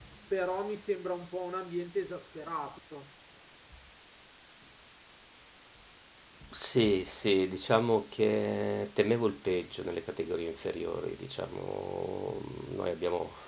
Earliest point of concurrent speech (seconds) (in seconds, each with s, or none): none